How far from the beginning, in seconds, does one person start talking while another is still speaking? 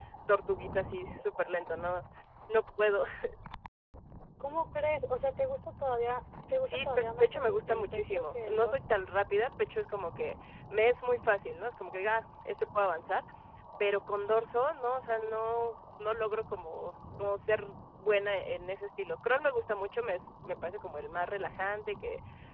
6.6 s

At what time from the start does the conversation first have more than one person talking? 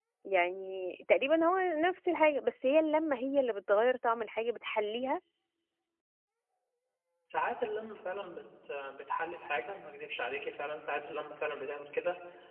none

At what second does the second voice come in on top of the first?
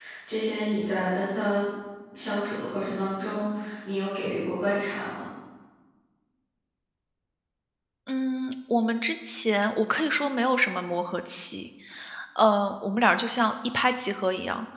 none

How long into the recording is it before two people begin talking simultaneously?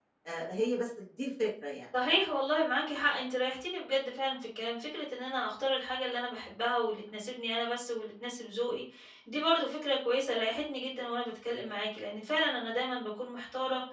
none

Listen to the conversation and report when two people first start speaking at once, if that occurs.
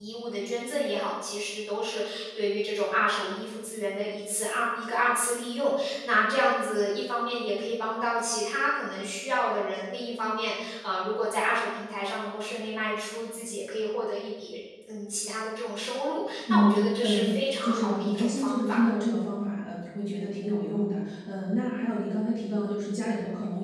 16.5 s

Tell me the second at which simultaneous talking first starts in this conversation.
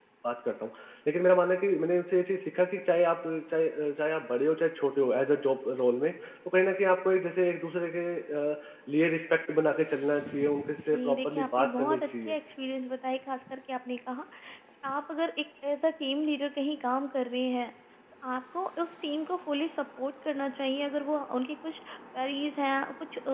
10.8 s

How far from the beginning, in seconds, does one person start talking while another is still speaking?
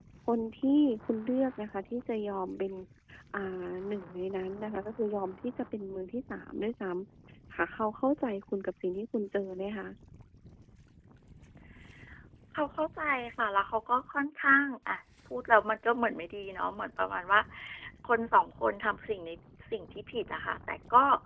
none

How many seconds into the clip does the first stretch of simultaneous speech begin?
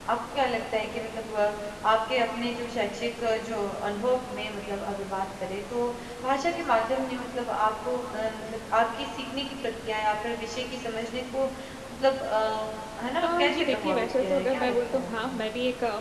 13.2 s

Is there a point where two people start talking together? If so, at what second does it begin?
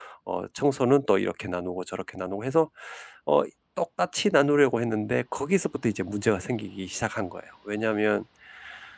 none

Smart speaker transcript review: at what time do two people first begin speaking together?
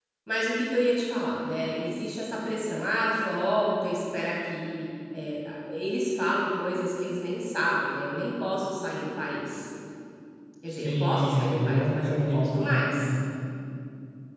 10.7 s

